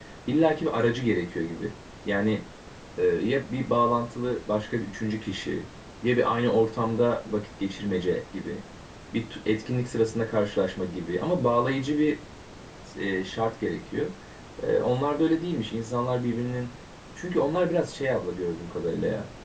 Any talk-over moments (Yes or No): No